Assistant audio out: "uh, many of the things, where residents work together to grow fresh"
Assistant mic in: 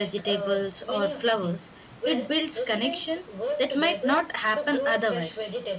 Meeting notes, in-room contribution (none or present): present